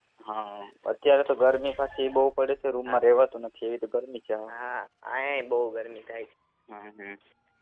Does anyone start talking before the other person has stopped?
No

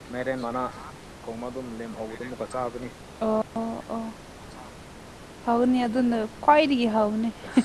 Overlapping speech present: No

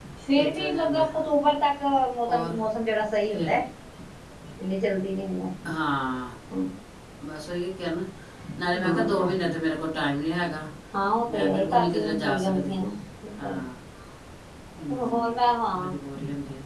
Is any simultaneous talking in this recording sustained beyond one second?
Yes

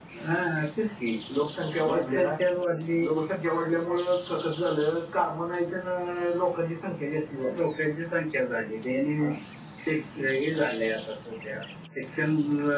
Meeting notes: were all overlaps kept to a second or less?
Yes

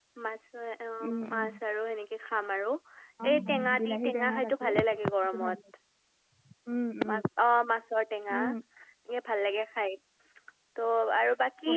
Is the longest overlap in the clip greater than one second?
Yes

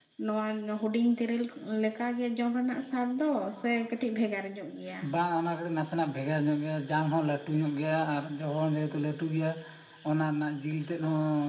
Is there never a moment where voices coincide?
Yes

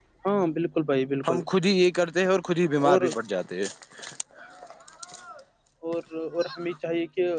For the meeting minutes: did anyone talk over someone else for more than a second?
No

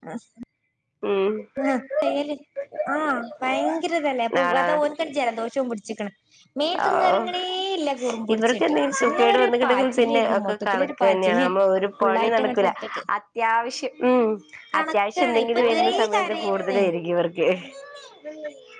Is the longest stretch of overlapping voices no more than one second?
No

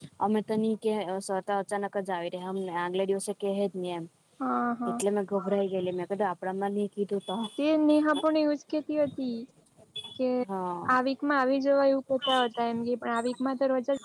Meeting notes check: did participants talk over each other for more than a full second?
No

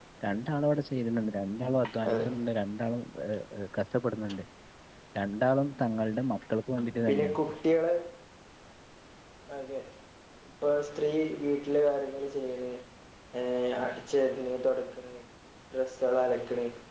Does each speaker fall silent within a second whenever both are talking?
Yes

